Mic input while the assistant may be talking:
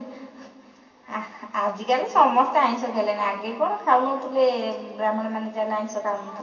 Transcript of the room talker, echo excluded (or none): none